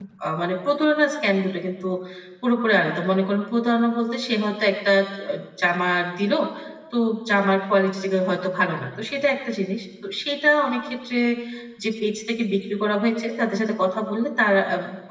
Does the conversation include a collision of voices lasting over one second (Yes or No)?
No